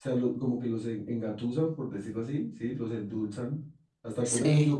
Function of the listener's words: listening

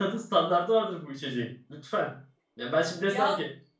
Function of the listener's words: listening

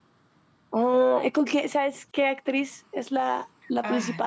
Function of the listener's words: taking over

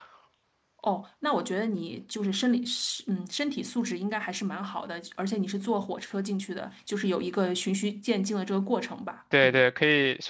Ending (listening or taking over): taking over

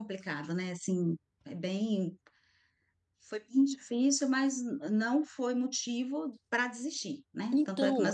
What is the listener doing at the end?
taking over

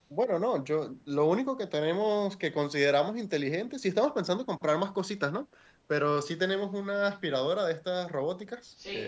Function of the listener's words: taking over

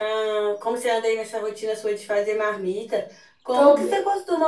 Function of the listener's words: listening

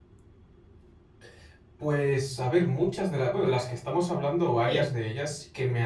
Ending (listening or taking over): listening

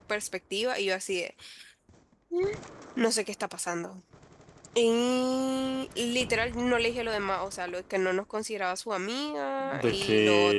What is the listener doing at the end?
taking over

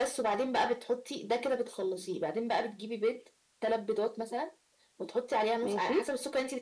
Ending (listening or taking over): listening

